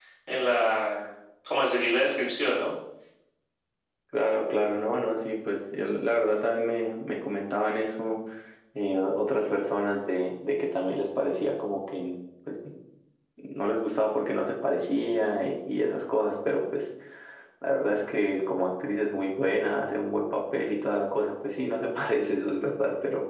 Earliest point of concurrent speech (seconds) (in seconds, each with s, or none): none